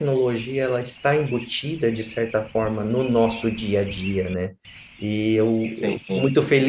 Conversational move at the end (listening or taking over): listening